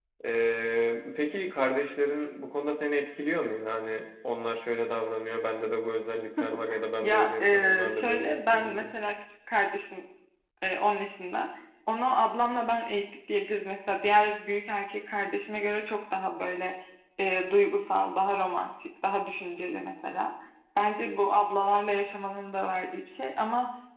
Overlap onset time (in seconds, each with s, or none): 7.0 s